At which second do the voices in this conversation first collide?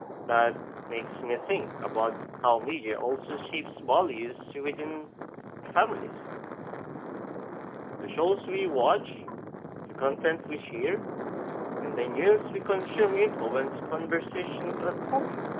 none

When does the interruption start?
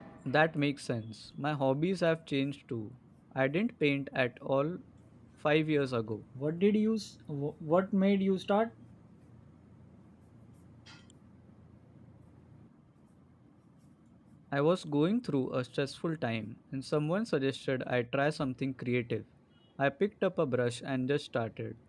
none

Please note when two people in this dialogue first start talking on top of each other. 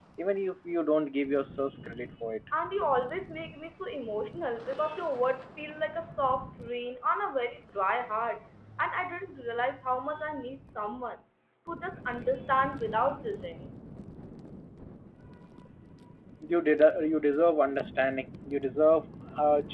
none

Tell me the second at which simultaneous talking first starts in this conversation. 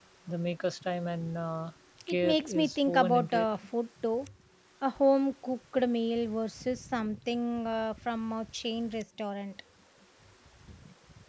2.1 s

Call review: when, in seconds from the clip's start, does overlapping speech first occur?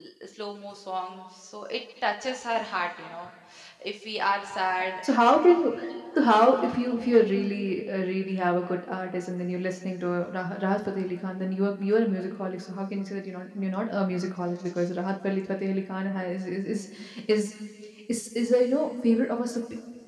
none

